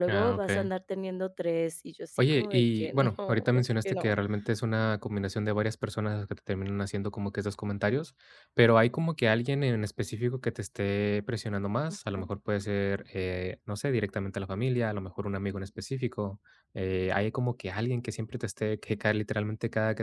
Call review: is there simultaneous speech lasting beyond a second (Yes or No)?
Yes